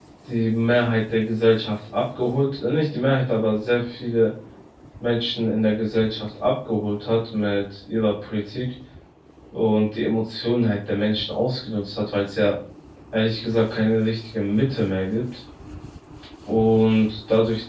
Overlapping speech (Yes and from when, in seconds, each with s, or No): No